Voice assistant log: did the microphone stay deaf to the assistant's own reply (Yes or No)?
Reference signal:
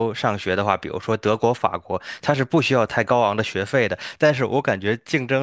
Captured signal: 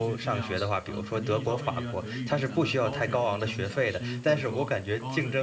No